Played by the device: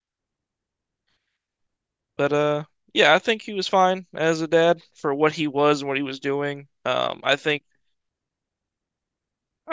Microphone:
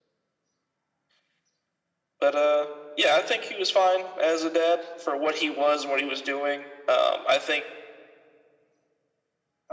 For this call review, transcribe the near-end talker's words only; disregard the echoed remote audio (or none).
none